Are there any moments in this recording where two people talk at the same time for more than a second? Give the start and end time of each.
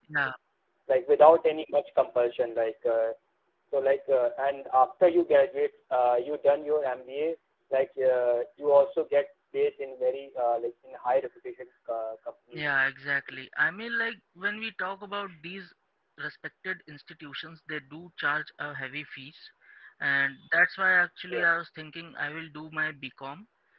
none

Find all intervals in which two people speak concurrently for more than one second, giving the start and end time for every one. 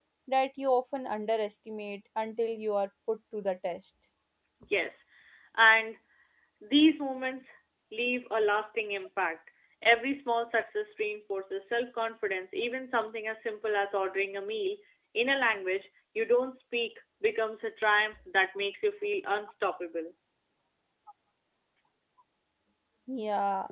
none

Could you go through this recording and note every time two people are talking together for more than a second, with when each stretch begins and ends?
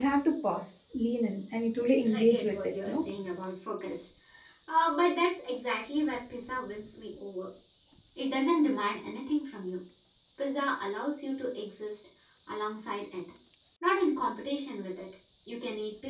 1.8-3.0

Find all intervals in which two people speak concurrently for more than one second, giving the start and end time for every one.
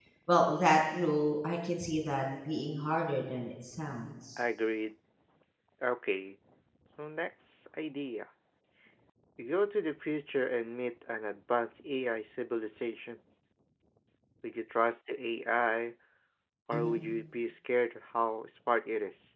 none

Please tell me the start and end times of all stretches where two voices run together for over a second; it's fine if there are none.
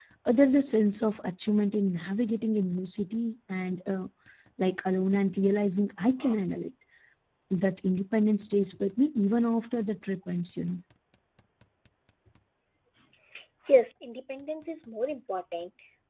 none

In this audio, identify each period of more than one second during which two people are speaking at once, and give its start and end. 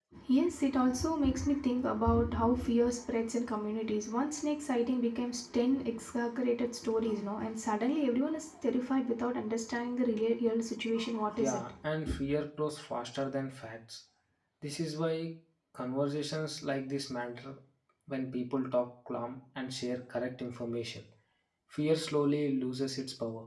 none

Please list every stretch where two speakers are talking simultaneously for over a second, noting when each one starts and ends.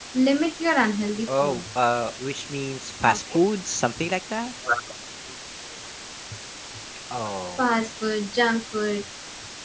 none

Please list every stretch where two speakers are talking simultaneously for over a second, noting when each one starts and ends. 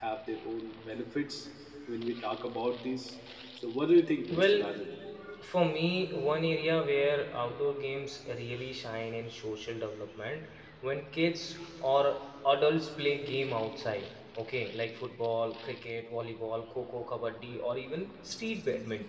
none

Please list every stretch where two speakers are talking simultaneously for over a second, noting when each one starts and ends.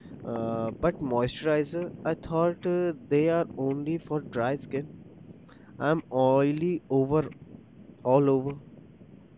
none

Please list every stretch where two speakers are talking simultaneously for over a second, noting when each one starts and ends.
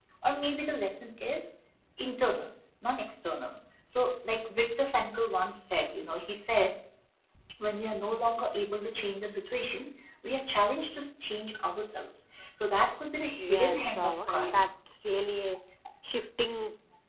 13.4-14.7

